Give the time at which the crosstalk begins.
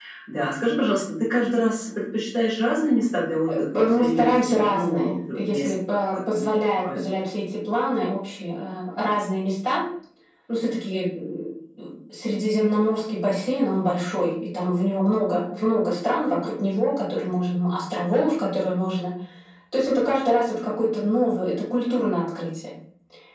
3 s

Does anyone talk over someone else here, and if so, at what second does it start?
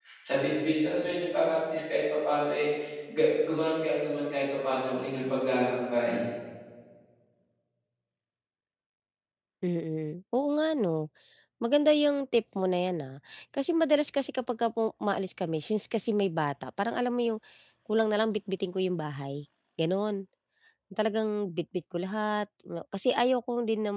none

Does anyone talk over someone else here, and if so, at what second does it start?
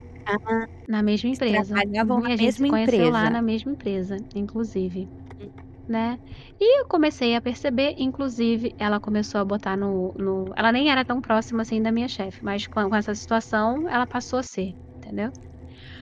1 s

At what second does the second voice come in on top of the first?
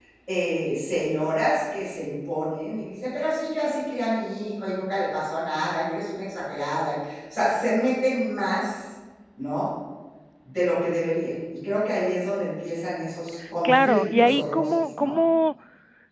14 s

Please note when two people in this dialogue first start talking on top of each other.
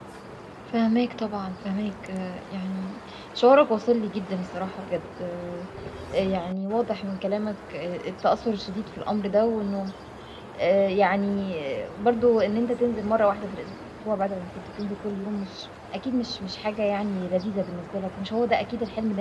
none

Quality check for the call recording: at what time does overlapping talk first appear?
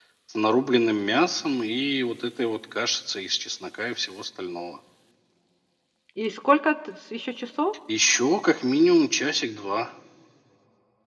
none

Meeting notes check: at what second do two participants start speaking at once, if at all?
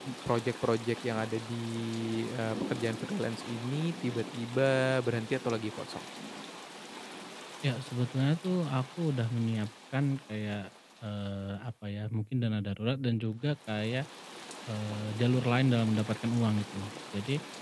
none

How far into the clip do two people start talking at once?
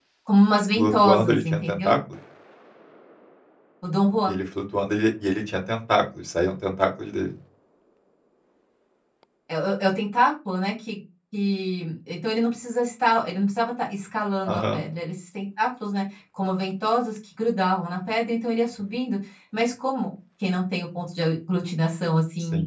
1 s

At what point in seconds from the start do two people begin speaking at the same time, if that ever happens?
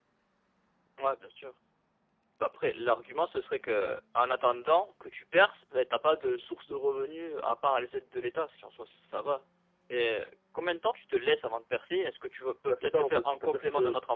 13 s

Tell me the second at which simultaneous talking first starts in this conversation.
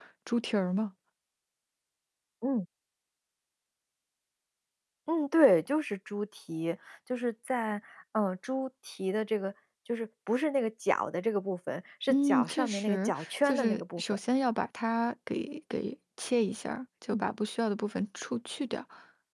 12 s

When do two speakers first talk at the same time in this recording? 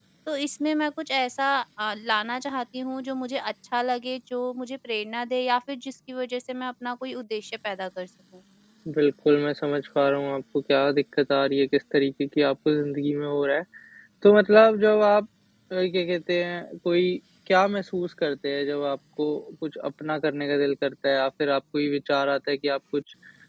none

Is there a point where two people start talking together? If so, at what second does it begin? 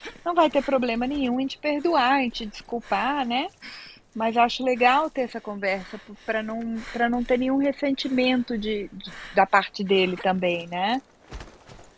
none

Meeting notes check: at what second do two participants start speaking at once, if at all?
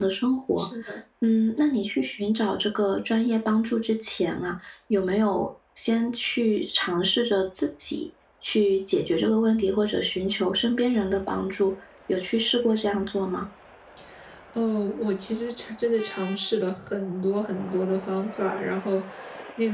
none

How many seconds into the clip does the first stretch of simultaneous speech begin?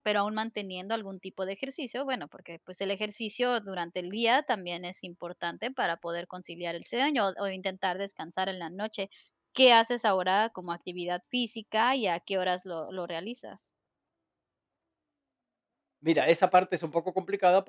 none

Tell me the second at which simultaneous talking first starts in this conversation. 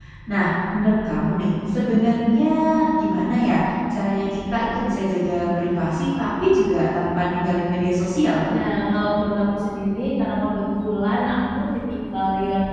none

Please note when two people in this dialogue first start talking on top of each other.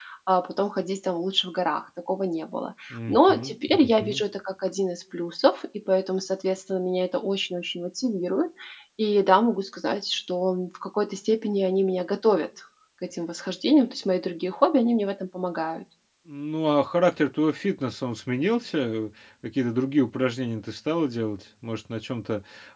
3 s

